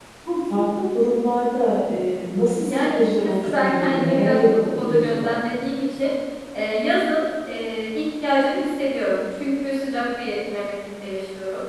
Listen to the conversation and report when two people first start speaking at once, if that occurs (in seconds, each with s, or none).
2.7 s